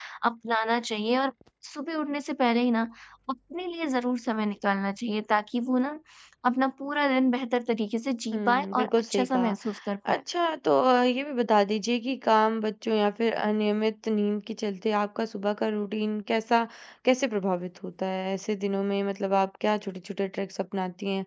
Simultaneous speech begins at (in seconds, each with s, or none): 8.3 s